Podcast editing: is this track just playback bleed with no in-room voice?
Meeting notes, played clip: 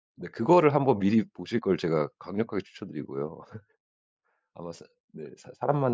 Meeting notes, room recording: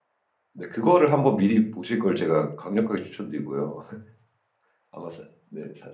Yes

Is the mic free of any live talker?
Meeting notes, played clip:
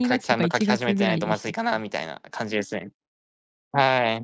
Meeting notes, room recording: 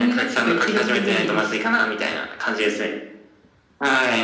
Yes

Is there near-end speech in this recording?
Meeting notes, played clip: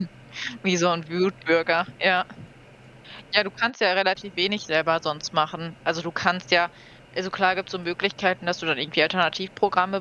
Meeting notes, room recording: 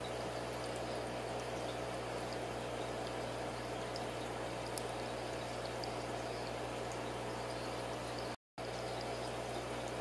No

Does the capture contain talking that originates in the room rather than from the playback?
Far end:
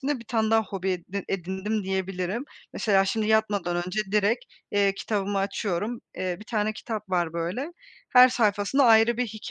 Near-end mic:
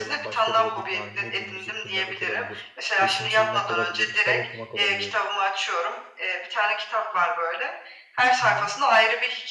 Yes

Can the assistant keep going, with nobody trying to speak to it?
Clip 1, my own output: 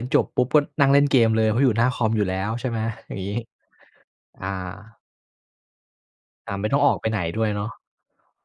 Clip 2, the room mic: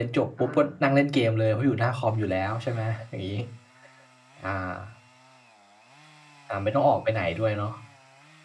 No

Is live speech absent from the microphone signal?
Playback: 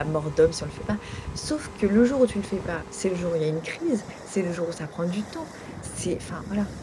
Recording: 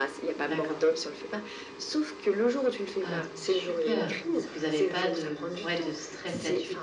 No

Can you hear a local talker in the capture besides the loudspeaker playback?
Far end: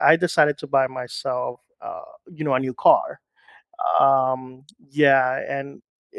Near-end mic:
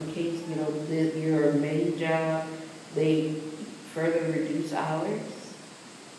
Yes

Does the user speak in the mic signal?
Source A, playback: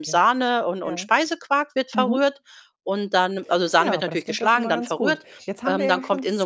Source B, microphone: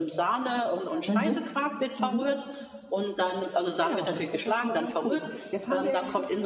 Yes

